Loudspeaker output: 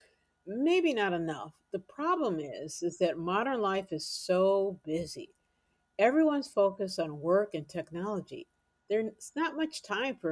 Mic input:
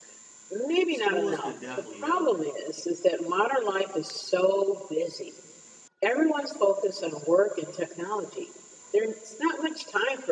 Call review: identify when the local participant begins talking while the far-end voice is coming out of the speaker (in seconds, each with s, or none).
0.9 s